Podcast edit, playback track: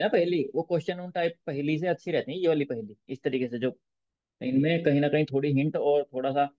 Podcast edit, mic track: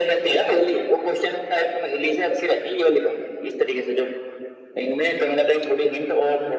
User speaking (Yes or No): No